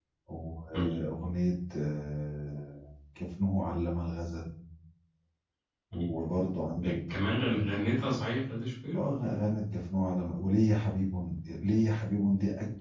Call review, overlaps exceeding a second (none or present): none